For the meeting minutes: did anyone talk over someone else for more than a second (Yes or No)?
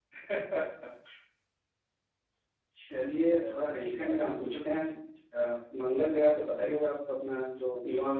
Yes